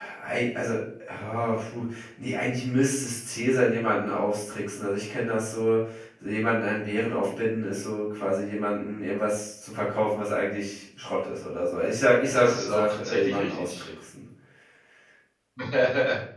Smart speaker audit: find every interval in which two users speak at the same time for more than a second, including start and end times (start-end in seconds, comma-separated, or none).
12.3-13.8